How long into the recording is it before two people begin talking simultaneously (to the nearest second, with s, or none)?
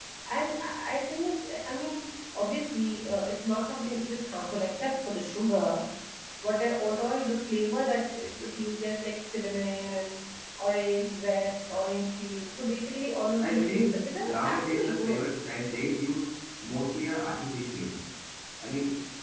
13 s